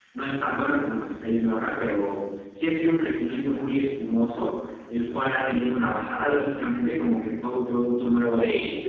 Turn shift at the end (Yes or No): No